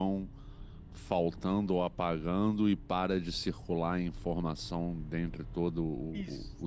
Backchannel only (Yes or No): No